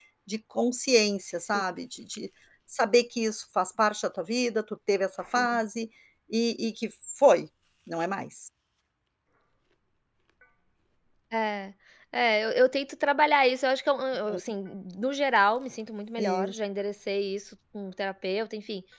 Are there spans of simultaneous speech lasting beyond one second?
No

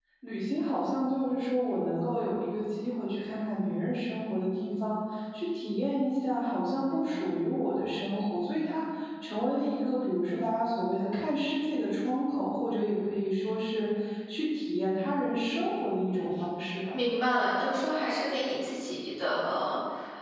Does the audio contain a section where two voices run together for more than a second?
No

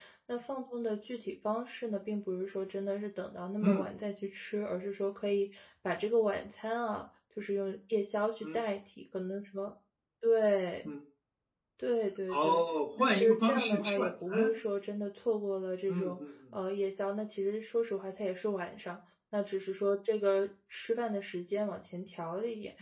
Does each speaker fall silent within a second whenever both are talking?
No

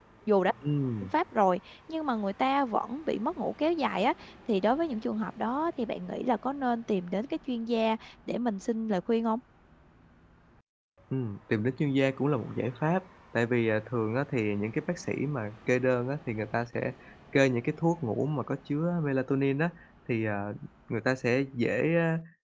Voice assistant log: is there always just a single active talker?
Yes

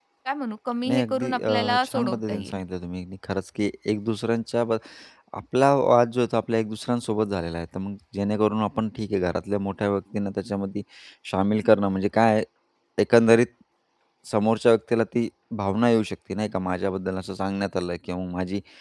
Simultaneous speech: Yes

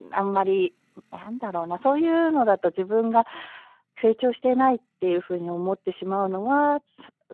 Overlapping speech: No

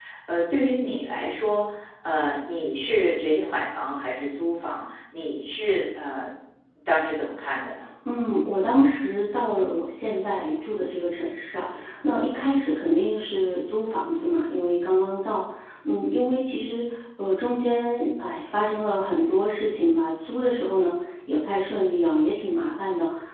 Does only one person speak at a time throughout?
Yes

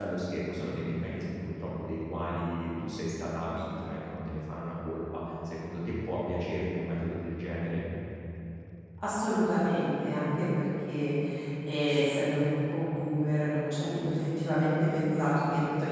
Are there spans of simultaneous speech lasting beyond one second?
No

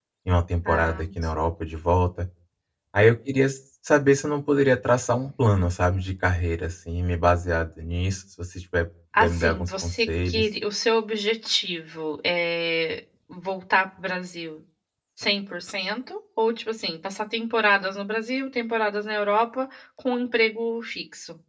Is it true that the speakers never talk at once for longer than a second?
No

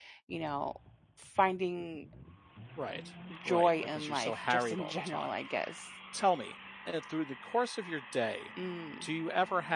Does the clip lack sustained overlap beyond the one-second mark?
No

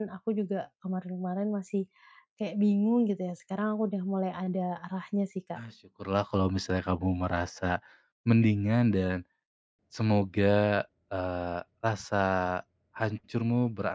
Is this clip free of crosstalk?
Yes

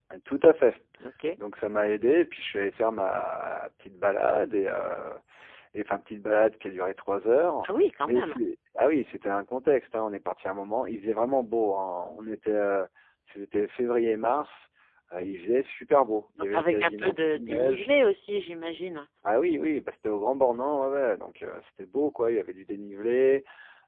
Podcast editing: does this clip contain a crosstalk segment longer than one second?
Yes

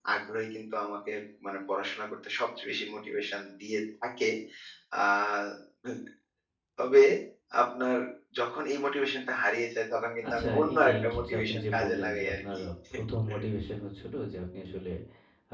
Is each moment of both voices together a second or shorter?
No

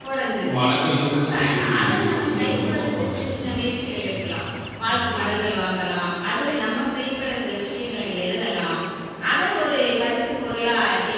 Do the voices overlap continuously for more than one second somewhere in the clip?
Yes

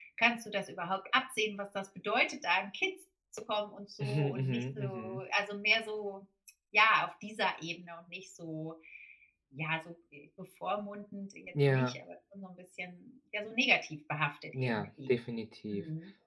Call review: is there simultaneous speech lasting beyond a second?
Yes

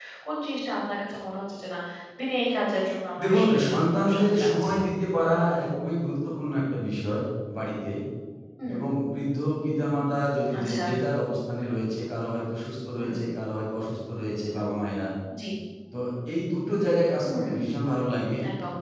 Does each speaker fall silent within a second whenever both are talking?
No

